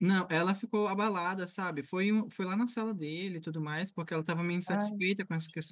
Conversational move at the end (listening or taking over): listening